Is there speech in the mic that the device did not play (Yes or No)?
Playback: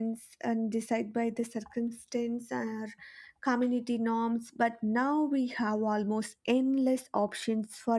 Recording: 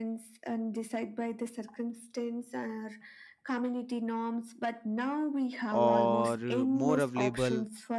Yes